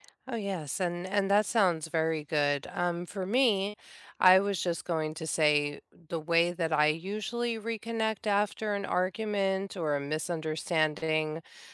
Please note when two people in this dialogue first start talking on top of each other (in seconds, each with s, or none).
none